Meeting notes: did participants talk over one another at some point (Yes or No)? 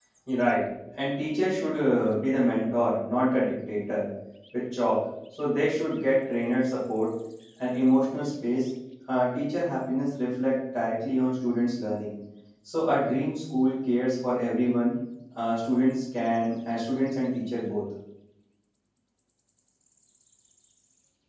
No